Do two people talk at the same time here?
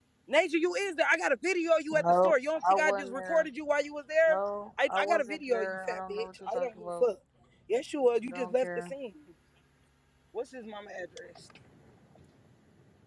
Yes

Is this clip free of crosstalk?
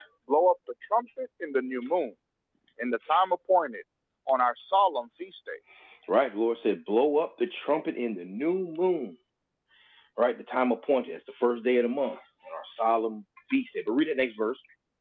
Yes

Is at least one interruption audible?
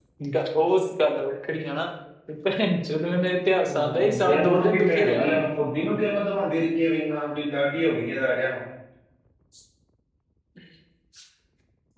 Yes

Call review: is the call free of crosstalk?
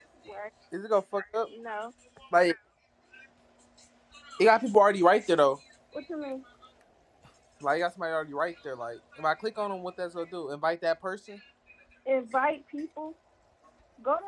Yes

